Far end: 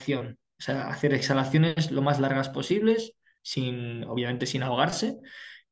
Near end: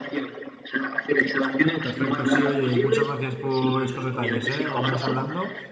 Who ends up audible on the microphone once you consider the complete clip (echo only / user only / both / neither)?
both